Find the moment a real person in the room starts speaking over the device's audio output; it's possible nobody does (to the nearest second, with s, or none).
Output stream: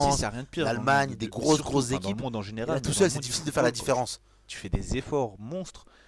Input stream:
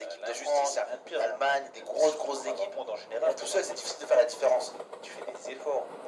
none